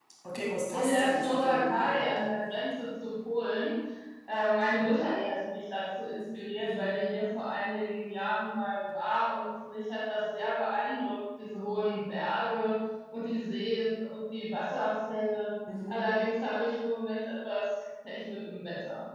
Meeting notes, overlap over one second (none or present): present